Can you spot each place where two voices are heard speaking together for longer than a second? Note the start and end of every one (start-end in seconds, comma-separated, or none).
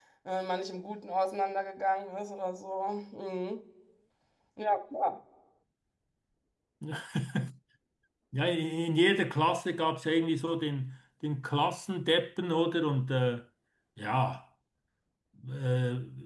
none